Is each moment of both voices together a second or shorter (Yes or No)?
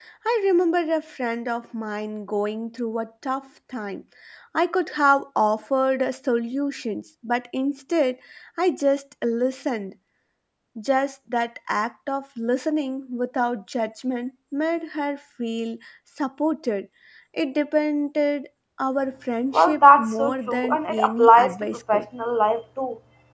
No